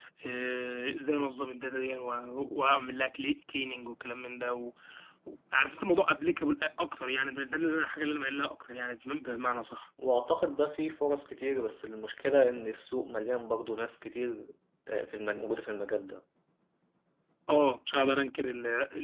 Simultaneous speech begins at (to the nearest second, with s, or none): none